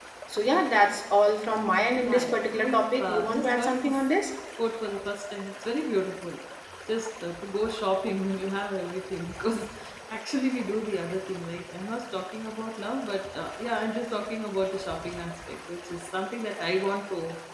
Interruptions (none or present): present